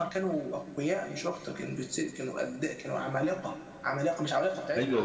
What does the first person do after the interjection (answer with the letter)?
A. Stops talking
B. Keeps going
A